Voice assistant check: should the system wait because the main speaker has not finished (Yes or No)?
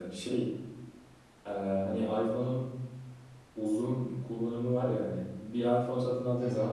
Yes